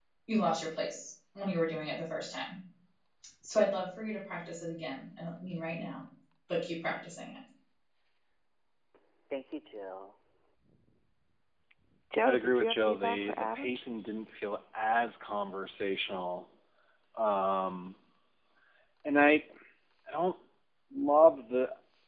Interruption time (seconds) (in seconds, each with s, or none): 12.2 s